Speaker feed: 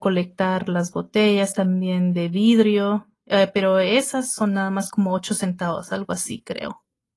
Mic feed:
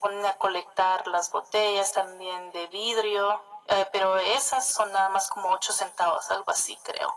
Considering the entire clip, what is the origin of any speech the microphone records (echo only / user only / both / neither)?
echo only